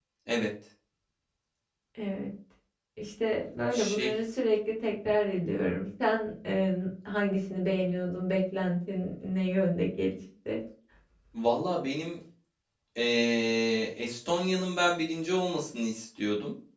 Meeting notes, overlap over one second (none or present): none